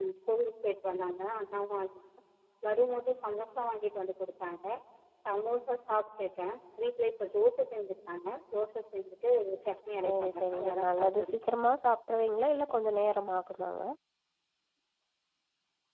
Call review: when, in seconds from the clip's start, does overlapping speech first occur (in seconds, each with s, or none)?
10.1 s